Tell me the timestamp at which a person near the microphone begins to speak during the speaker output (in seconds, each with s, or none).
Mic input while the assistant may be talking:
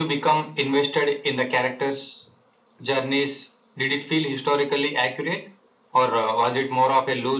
none